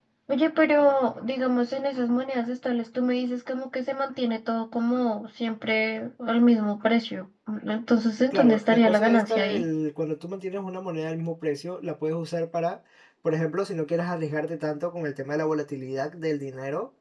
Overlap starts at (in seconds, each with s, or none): 8.3 s